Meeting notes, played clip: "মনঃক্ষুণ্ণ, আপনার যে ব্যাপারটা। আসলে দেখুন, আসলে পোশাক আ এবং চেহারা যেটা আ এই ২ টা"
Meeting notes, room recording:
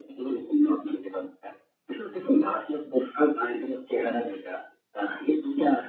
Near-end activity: none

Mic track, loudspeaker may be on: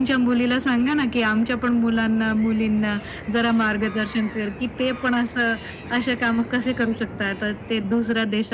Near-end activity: none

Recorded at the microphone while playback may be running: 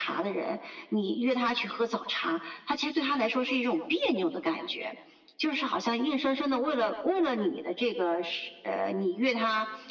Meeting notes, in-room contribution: none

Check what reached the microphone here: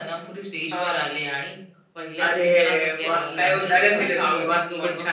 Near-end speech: present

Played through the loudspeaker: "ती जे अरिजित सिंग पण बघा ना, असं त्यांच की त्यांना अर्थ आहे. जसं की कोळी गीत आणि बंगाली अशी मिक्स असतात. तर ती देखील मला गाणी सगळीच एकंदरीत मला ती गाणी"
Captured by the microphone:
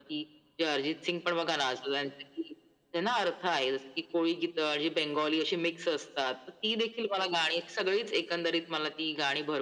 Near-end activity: none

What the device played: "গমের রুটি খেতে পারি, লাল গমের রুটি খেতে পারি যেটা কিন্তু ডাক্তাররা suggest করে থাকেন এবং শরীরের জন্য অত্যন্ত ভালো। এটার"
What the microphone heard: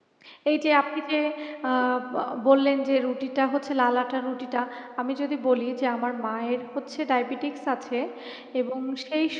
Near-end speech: present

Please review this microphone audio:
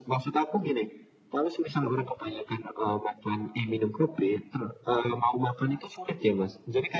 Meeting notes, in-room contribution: none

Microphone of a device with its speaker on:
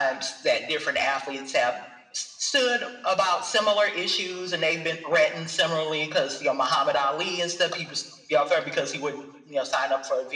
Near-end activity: none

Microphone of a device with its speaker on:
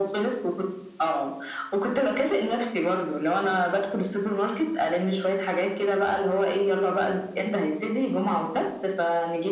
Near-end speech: none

